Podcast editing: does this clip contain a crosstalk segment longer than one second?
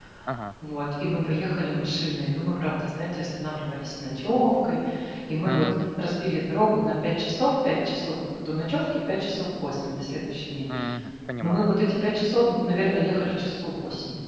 No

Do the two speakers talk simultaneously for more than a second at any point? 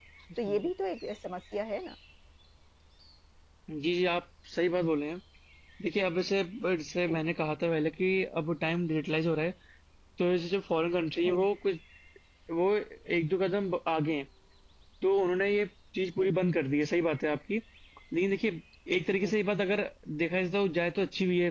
No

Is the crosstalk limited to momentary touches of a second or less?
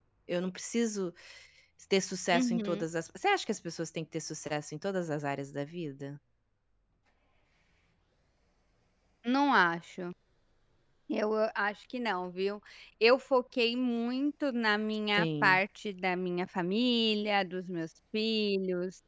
Yes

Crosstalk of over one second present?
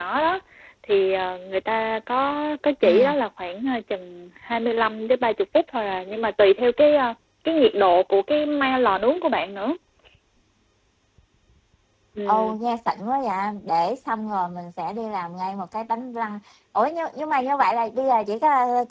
No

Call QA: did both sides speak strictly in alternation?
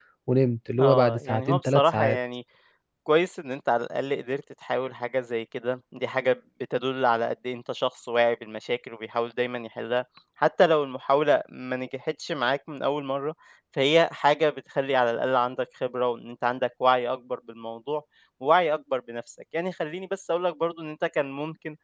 No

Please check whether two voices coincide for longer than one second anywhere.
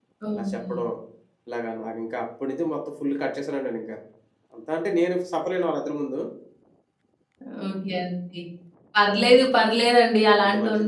No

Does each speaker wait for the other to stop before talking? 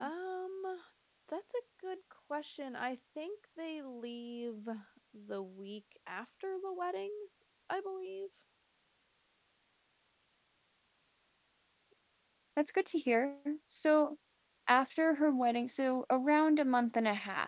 Yes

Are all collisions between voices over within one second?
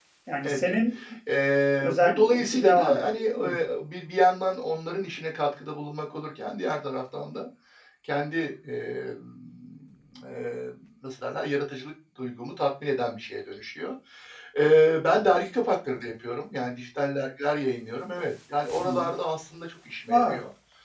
No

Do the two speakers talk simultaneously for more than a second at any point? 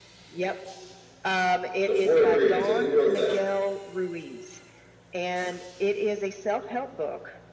Yes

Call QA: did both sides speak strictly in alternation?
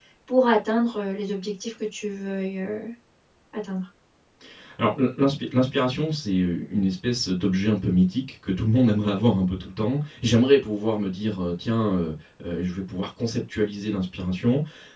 Yes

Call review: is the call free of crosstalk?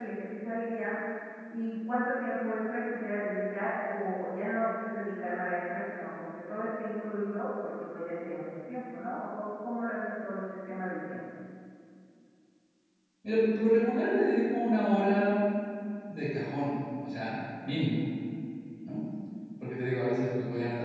Yes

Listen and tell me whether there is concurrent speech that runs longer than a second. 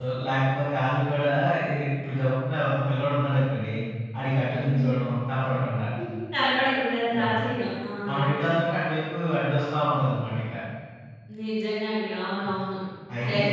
No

